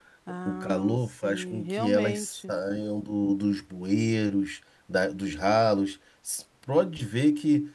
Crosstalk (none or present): present